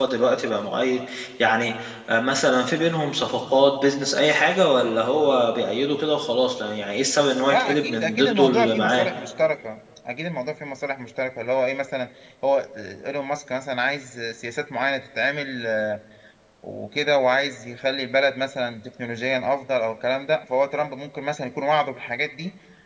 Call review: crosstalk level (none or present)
present